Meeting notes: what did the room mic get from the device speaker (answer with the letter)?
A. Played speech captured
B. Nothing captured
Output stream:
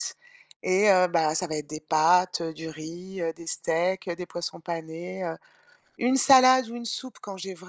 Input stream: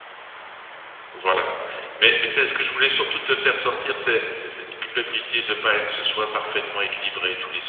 B